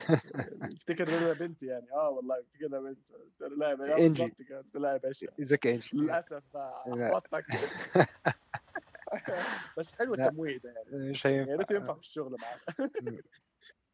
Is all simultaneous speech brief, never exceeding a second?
Yes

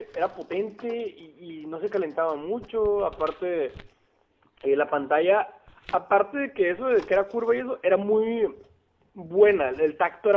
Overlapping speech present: No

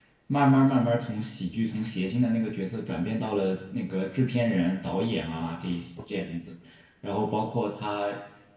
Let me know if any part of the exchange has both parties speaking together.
No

